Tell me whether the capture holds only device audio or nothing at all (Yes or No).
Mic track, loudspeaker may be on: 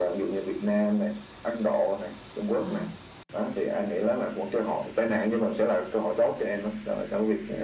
No